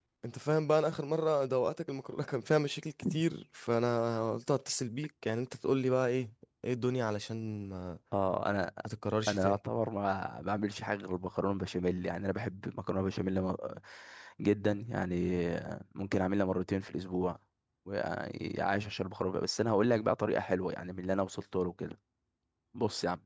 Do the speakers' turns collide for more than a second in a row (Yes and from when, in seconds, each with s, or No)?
No